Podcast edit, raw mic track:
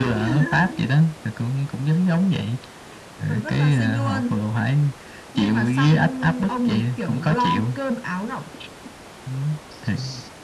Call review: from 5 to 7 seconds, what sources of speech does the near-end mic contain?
echo only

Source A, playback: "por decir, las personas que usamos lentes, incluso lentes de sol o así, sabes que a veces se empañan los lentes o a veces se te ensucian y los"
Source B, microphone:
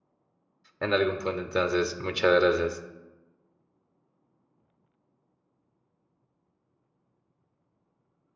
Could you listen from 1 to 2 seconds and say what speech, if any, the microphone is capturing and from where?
user only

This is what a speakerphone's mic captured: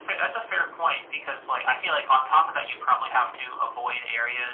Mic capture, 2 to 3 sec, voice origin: echo only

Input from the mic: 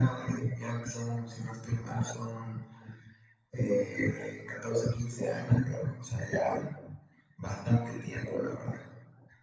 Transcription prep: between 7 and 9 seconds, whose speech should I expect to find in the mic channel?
echo only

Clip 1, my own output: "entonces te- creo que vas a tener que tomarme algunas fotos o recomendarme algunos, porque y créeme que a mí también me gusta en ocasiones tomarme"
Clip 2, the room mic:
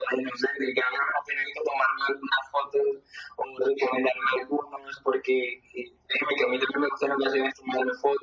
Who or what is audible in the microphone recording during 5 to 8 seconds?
echo only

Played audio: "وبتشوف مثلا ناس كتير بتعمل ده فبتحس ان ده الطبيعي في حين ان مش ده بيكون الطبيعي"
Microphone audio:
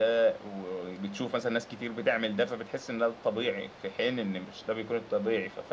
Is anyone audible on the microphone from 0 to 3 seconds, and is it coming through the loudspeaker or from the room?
echo only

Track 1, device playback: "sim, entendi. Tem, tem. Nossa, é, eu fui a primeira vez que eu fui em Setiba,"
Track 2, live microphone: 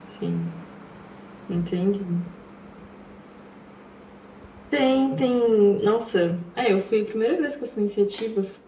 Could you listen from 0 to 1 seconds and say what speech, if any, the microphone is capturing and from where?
echo only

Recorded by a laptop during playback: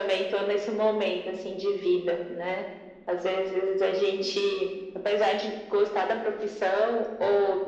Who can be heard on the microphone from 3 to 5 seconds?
echo only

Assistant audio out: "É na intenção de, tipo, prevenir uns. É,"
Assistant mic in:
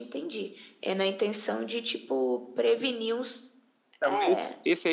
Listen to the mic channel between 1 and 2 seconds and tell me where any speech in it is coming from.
echo only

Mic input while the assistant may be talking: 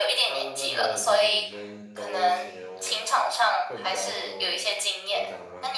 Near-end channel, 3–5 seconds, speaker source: both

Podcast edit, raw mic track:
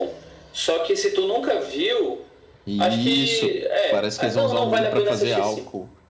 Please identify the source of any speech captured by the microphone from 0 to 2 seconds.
echo only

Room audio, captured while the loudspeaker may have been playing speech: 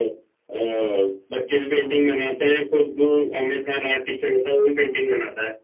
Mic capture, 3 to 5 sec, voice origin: echo only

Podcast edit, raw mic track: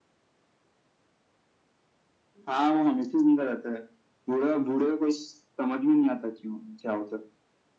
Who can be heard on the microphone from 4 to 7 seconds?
echo only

